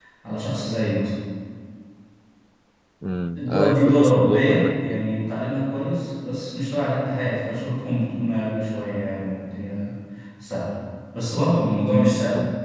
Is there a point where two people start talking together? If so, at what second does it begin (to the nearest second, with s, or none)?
3 s